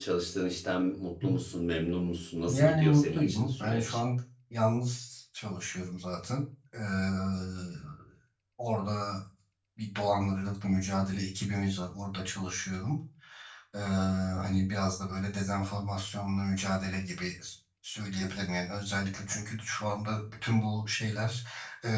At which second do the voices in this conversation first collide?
2 s

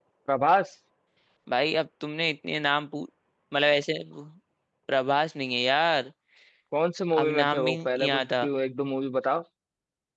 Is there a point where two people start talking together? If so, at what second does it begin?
7 s

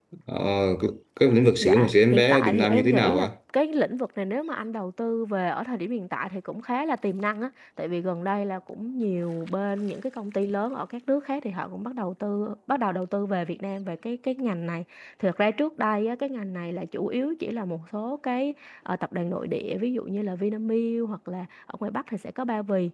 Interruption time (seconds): 2 s

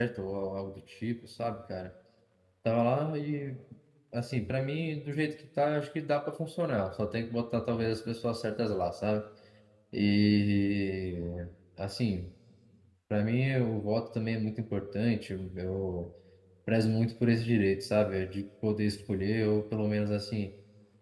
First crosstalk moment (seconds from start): none

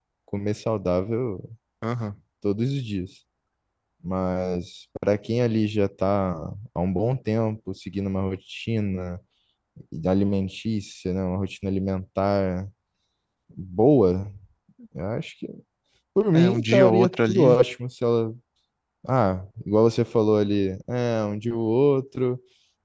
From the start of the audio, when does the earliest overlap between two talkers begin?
16 s

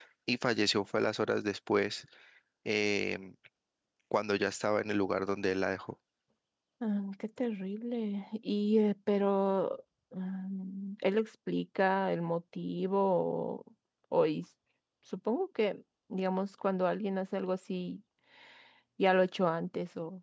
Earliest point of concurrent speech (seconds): none

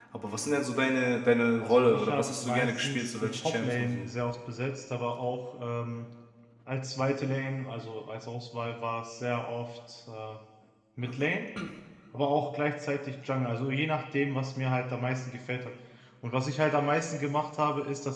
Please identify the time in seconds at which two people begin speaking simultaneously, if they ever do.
2 s

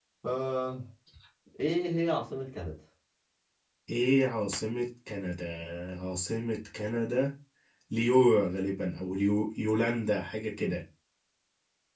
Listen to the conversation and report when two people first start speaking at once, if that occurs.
none

